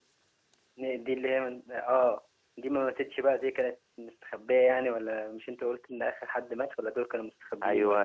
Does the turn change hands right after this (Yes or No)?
Yes